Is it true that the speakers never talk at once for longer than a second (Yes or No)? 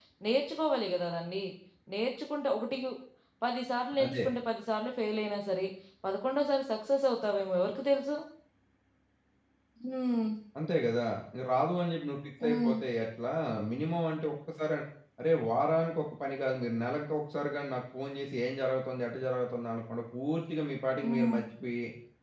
Yes